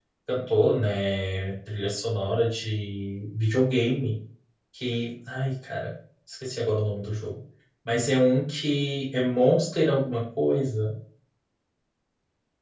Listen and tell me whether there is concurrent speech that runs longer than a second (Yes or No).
No